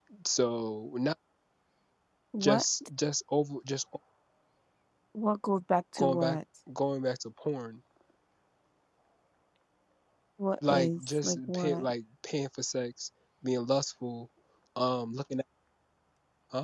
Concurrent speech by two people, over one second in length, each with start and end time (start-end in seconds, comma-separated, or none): 10.7-11.9